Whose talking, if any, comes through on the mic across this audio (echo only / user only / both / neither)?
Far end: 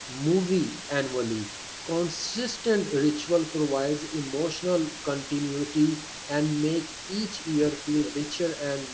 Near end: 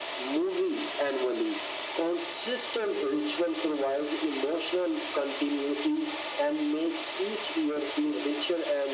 echo only